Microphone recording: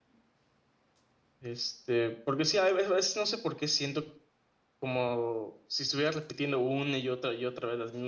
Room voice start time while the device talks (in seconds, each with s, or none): 1.4 s